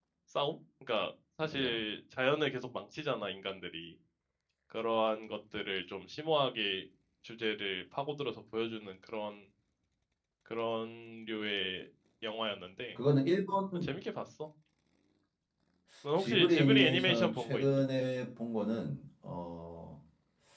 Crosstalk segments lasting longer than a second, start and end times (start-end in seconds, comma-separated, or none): 16.2-17.6